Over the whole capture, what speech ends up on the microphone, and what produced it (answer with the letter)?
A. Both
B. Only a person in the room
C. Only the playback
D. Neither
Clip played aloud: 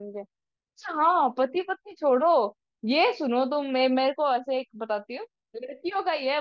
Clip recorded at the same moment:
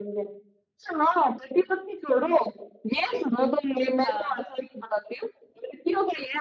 A